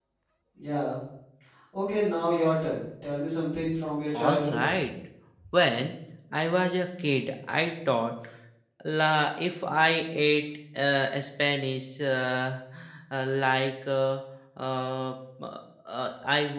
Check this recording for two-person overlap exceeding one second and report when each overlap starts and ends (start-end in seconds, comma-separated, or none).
none